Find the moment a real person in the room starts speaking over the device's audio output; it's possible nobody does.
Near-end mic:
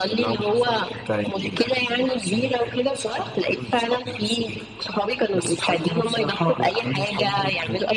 none

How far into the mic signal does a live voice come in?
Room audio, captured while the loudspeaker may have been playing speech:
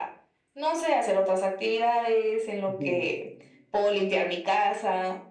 2.7 s

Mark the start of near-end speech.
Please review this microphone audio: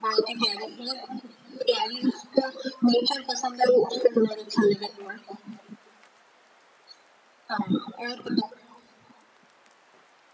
none

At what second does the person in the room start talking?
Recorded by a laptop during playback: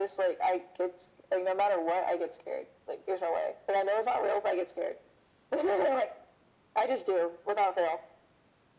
none

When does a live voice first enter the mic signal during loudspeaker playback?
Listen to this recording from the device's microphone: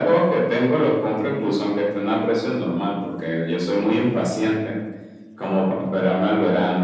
none

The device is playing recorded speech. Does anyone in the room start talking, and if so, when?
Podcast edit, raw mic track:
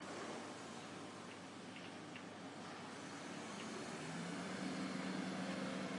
none

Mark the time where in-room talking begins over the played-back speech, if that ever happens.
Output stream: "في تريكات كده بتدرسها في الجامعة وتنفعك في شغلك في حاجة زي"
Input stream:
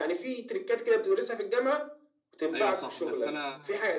2.5 s

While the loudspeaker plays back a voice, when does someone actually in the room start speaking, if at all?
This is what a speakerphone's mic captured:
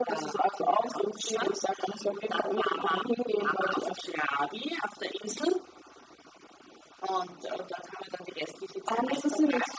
none

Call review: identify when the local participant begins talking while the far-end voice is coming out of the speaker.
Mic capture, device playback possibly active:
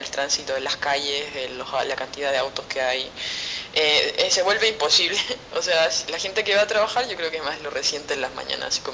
none

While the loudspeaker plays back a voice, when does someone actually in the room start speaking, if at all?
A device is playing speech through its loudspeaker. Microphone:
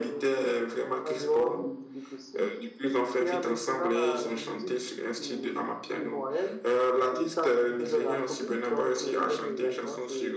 none

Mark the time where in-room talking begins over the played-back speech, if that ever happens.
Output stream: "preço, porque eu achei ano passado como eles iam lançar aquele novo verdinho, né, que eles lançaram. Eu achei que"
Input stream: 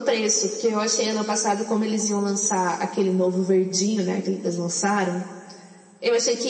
none

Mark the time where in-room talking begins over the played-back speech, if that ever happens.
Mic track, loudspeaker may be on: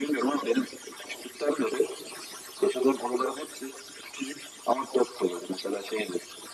none

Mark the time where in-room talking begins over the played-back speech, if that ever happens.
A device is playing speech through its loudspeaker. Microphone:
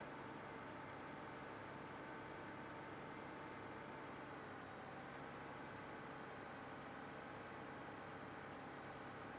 none

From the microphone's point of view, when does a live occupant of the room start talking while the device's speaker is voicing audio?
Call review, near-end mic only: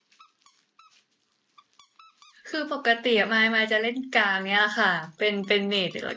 2.5 s

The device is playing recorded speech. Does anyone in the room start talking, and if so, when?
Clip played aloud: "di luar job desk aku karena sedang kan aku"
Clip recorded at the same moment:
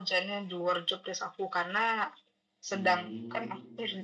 2.7 s

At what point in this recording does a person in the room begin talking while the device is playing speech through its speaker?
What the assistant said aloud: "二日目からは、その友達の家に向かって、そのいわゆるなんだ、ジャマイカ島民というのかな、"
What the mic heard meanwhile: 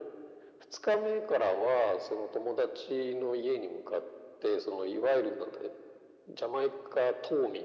none

